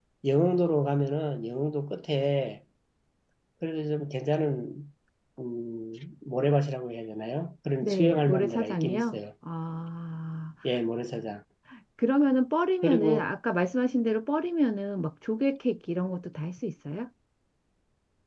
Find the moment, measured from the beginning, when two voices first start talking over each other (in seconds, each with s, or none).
7.8 s